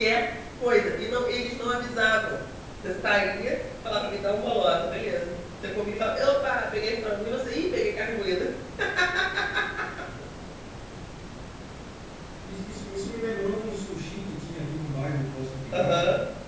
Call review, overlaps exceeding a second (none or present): none